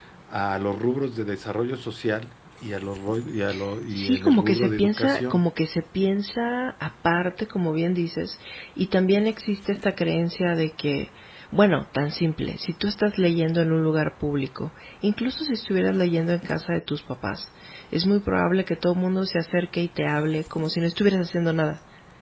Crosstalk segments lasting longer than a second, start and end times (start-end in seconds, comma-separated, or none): 3.9-5.4